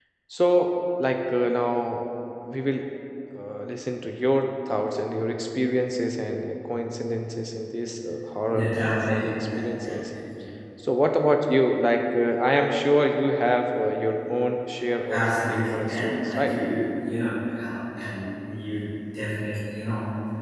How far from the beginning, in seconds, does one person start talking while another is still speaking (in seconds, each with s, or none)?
8.5 s